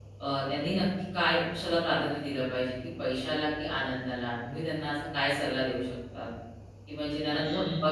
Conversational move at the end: listening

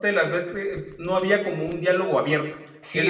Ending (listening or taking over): taking over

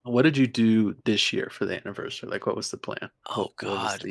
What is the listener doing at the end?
taking over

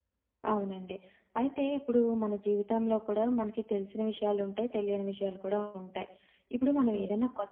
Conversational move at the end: listening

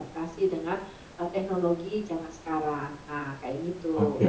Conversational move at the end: taking over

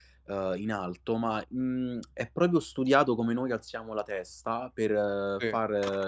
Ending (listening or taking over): listening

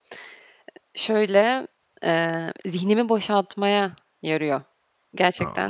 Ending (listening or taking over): taking over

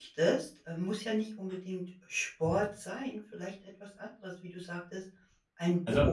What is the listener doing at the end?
listening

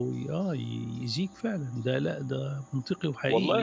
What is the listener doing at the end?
taking over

